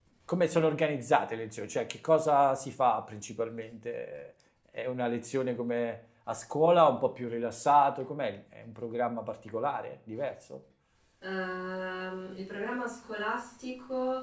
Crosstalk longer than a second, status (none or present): none